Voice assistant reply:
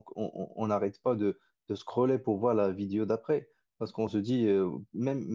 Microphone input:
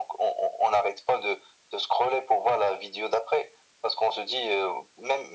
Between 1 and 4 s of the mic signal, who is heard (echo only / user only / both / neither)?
echo only